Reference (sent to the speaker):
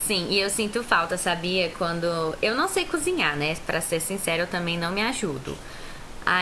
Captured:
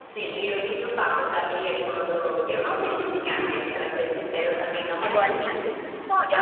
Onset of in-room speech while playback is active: 5.0 s

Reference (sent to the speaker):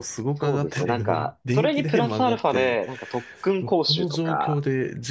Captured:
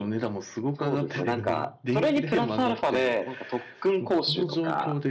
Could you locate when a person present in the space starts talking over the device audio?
none

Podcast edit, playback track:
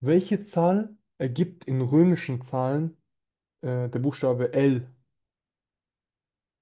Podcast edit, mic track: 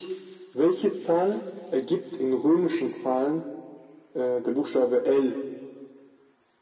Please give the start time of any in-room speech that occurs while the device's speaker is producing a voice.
none

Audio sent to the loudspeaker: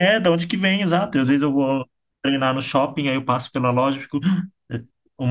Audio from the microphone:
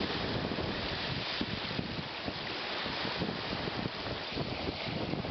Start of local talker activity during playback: none

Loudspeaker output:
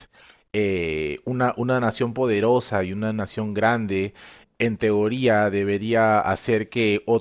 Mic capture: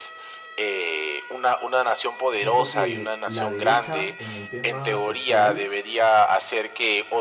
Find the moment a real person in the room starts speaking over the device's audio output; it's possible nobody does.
2.3 s

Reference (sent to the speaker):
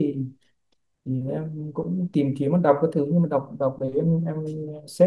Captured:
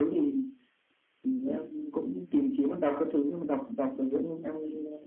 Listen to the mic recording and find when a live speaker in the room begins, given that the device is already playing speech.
none

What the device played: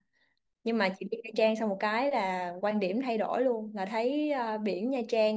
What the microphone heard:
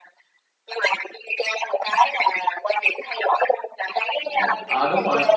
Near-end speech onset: 4.2 s

